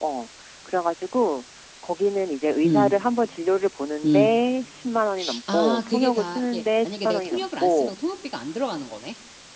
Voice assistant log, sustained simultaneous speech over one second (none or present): present